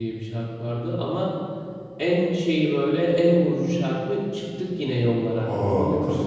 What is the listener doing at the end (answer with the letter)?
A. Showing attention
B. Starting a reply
B